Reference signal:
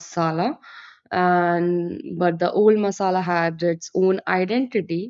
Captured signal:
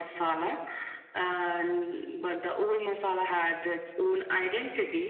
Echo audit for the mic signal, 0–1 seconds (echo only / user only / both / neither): both